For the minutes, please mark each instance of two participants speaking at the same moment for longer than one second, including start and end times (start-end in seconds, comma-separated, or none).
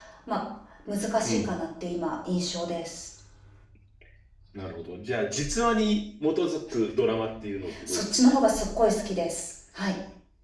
none